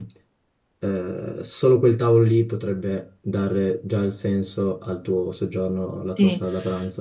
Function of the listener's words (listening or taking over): taking over